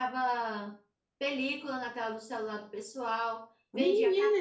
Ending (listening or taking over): taking over